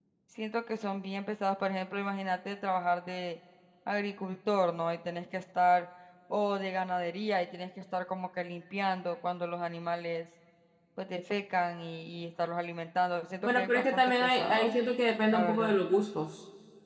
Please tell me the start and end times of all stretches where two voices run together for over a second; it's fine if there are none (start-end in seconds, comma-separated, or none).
13.4-14.8